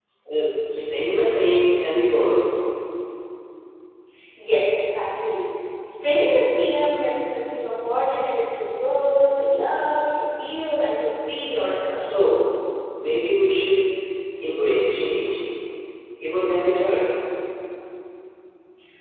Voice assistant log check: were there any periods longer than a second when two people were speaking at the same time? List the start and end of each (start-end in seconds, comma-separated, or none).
none